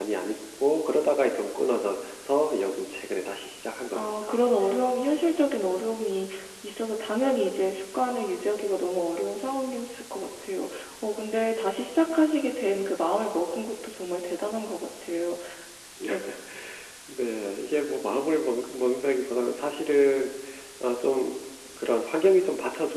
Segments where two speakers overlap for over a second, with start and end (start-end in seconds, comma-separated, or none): none